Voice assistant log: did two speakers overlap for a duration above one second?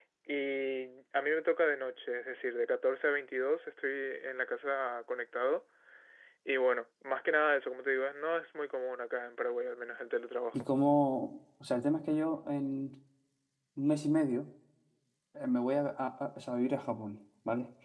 No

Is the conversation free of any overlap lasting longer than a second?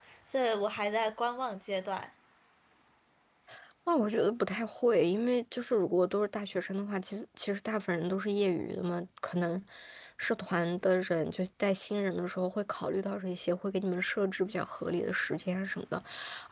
Yes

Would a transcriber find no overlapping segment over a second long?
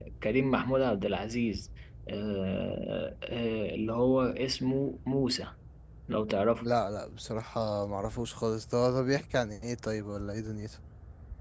Yes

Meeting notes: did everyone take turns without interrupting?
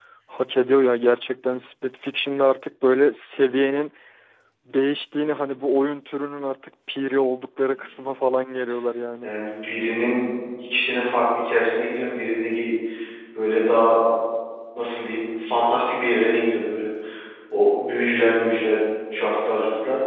Yes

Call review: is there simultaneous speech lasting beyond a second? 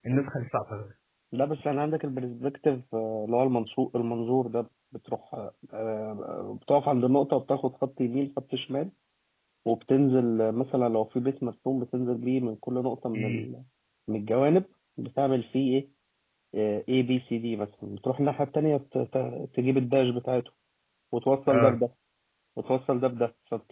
No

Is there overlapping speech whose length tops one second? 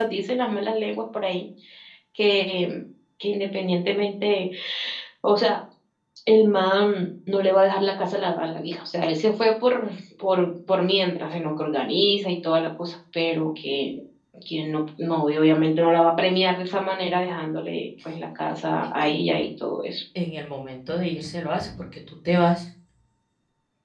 No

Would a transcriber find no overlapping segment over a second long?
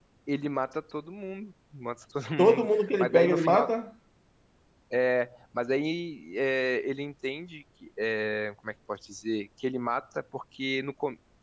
No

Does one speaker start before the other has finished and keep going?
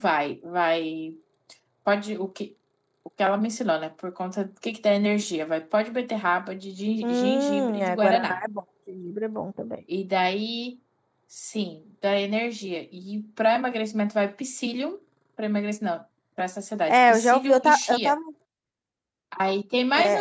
Yes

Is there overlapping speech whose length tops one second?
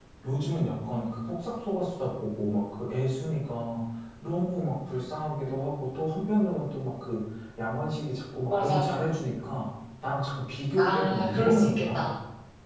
Yes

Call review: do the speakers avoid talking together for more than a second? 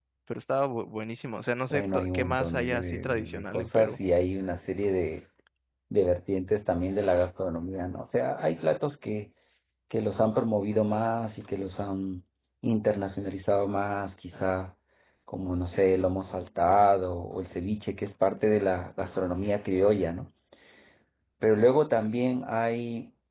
No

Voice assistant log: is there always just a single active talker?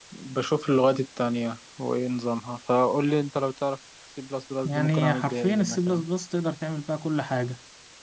No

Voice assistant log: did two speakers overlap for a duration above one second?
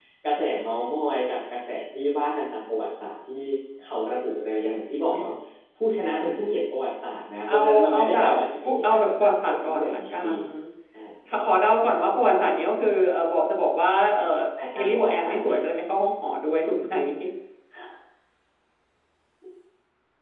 Yes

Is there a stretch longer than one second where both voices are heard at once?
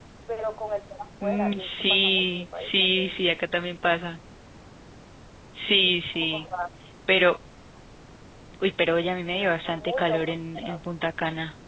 Yes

